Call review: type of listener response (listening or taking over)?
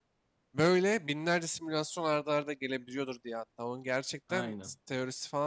listening